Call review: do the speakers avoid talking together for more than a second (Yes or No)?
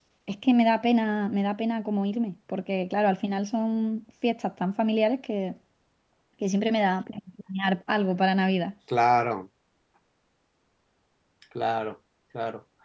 Yes